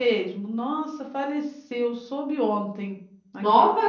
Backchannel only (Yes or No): Yes